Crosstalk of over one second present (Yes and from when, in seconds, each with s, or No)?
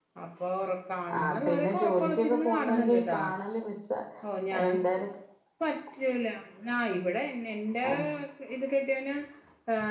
Yes, from 1.2 s